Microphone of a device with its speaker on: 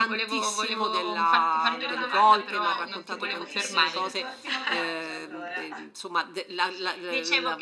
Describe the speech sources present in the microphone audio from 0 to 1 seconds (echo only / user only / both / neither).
echo only